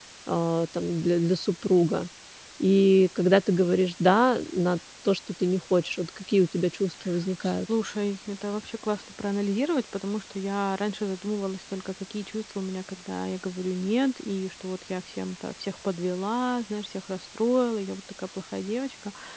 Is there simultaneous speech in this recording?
No

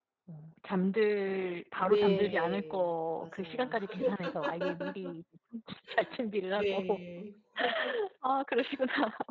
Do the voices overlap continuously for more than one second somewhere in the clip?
Yes, from 1.8 s

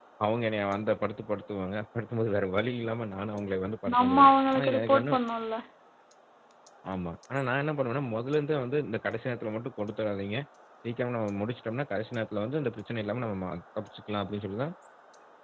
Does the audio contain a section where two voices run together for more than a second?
Yes, from 3.9 s

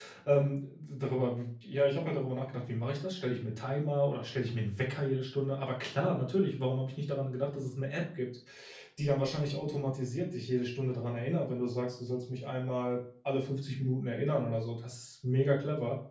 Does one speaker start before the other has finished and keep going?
No

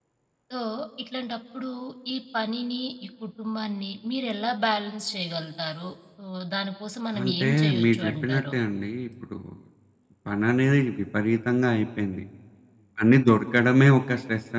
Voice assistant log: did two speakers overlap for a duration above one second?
Yes, from 7.1 s

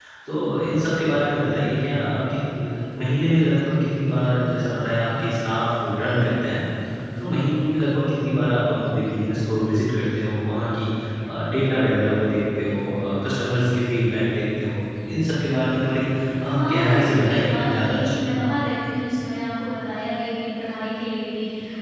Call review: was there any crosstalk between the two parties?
Yes, from 16.5 s

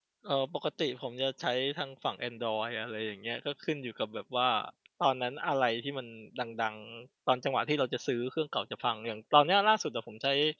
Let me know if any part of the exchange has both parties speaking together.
No

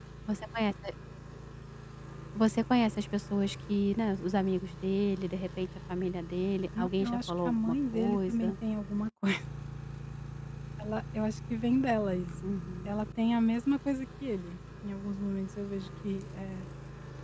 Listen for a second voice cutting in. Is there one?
Yes, from 6.8 s

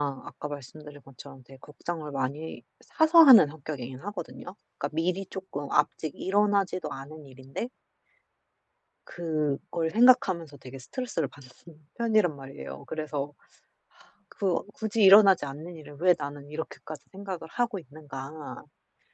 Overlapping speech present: No

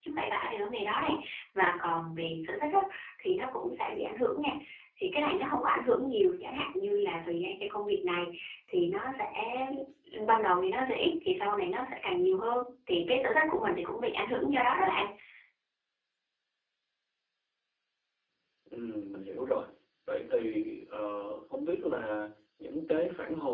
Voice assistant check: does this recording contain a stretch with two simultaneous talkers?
No

